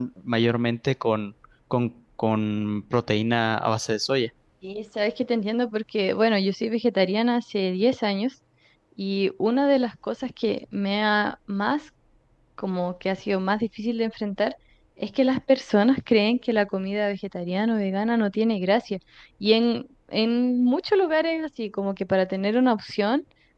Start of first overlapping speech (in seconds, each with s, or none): none